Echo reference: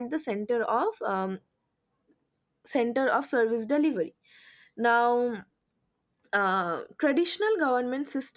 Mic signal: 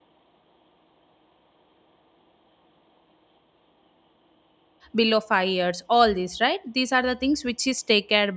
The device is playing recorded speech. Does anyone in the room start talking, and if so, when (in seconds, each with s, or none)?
5.0 s